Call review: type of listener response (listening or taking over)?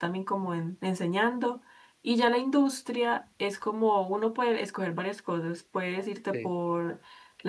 listening